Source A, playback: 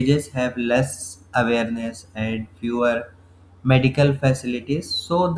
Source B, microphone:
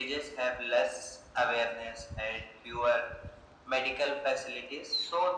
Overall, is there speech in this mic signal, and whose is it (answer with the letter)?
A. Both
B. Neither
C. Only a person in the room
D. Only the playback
D